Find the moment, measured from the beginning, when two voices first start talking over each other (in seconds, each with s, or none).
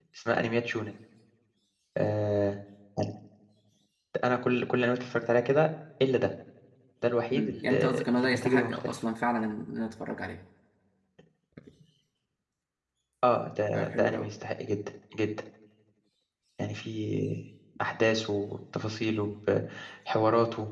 7.3 s